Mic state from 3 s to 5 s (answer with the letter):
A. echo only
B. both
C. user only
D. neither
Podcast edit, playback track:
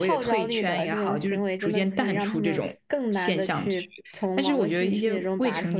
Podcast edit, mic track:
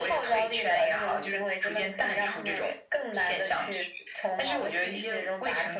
A